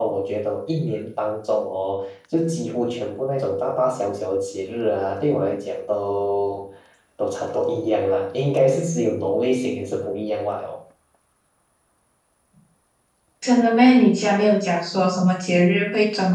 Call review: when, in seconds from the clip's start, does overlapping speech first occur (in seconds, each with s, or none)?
none